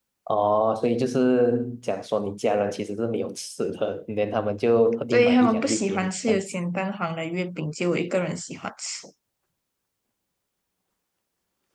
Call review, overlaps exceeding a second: present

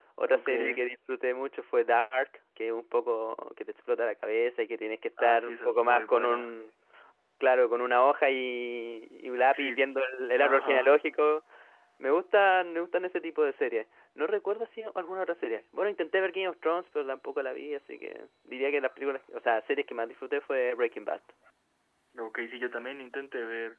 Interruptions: present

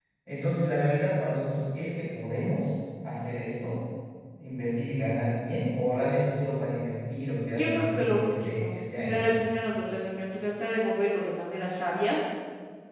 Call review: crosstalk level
present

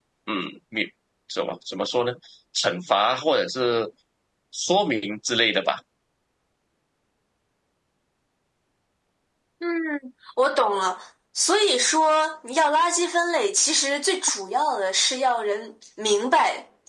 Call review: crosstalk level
none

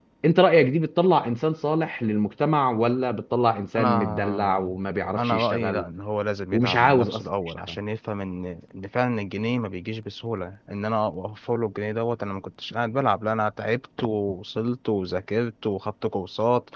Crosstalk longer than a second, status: present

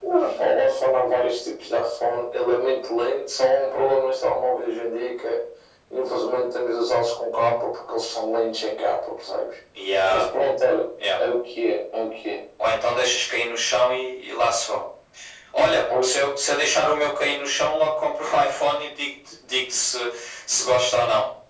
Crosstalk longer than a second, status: none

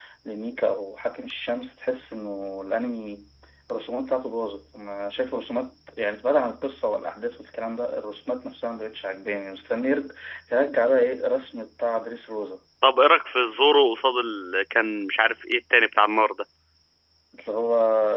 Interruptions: none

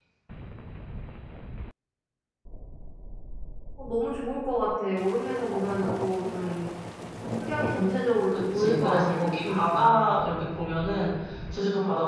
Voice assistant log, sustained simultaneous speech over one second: present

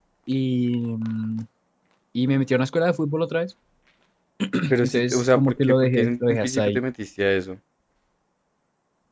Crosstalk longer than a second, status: present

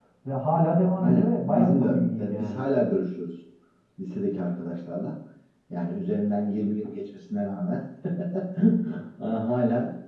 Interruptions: present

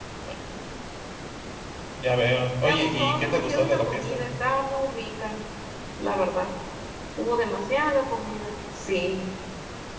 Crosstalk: present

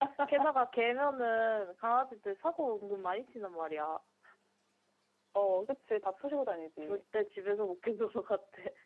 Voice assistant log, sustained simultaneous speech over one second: none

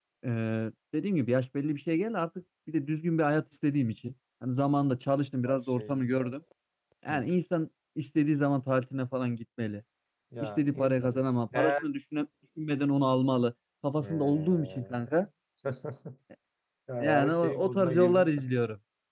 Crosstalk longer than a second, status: present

